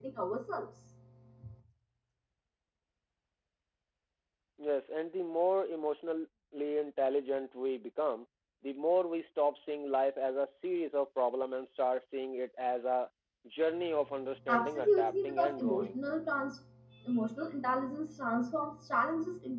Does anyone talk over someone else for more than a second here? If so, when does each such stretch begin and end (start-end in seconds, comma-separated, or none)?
14.5-16.0